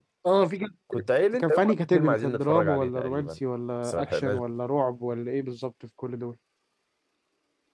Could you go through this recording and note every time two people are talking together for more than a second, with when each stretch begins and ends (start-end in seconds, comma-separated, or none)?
1.4-3.3